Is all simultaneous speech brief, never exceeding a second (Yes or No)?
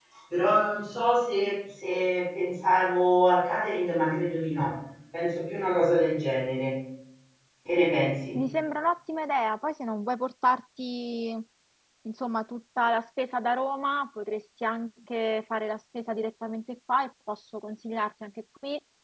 Yes